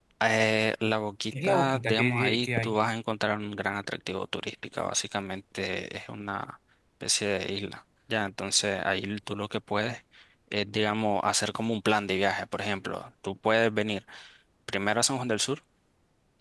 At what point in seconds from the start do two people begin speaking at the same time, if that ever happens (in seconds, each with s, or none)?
1.3 s